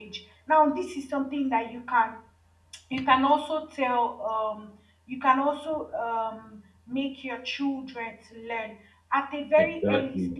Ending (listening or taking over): listening